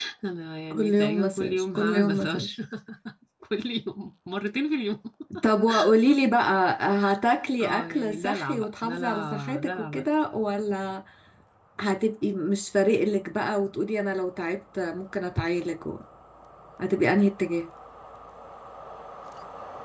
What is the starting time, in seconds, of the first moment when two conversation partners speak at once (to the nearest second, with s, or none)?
1 s